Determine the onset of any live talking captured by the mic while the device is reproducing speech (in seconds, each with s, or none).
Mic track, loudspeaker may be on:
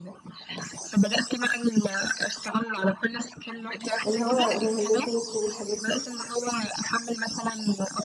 4.0 s